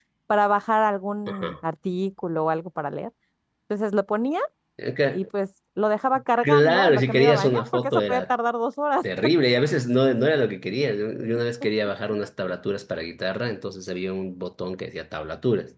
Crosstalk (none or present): present